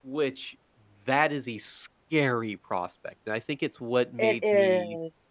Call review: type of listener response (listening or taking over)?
listening